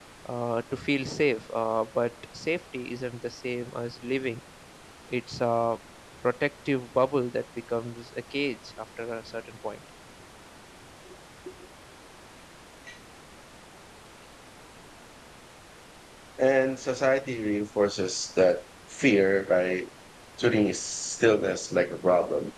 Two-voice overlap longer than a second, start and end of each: none

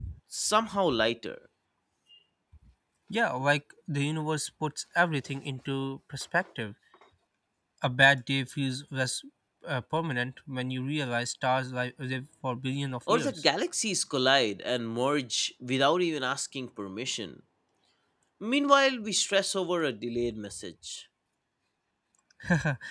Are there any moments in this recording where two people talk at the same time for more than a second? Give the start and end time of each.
none

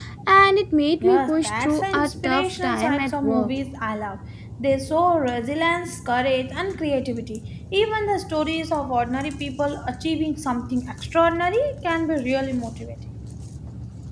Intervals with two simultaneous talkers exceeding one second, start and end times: 1.0-3.5

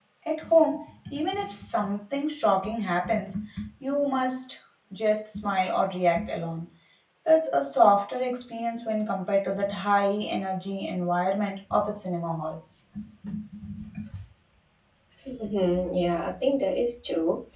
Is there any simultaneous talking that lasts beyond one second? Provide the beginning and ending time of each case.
none

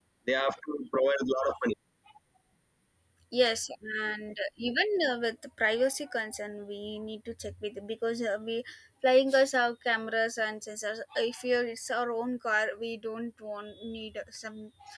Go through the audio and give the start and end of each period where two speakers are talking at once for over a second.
none

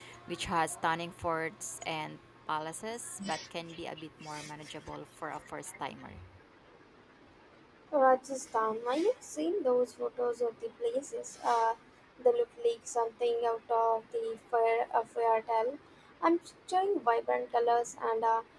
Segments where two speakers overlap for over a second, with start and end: none

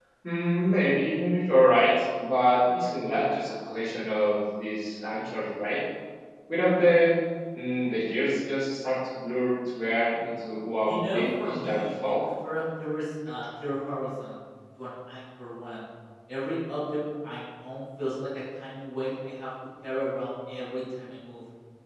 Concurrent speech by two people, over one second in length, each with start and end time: 10.8-12.1

